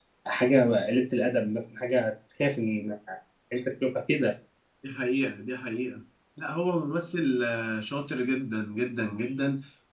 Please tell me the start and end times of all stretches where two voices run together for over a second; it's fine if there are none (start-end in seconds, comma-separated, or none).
none